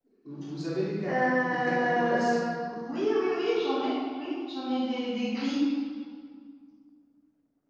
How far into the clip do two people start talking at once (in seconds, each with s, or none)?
1.1 s